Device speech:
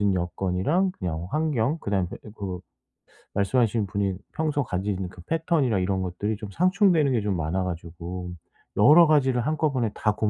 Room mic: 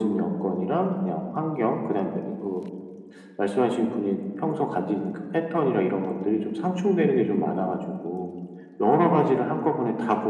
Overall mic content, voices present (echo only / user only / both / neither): echo only